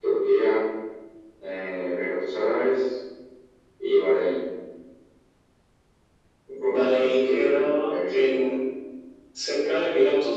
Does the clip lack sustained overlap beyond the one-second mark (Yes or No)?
No